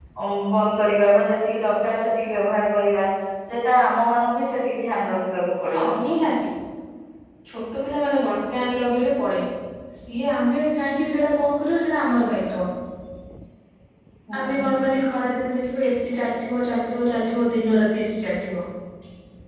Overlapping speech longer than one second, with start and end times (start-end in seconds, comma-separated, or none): none